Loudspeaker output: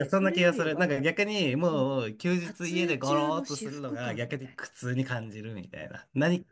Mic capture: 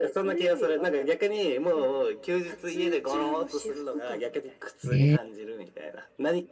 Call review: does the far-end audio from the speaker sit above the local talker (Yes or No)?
No